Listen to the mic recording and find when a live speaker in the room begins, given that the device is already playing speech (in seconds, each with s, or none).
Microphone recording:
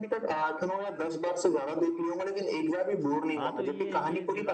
3.4 s